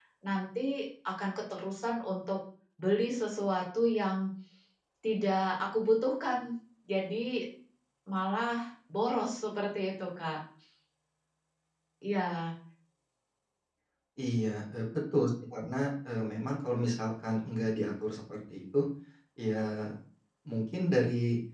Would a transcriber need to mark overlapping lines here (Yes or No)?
No